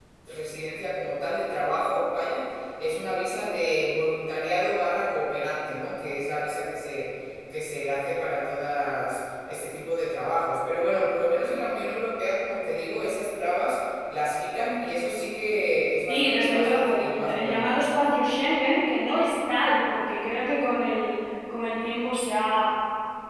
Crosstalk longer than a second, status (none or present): present